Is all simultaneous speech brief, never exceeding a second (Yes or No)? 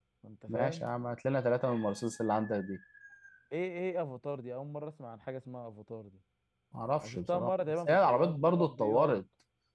No